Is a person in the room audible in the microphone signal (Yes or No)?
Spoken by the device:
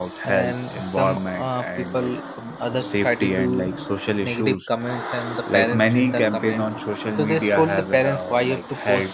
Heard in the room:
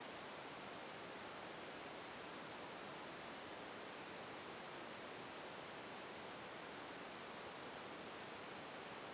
No